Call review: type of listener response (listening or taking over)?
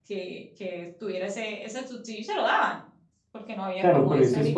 taking over